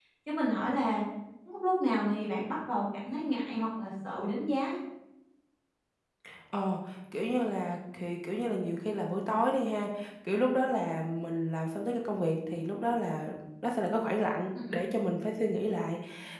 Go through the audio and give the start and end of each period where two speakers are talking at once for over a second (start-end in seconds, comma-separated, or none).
none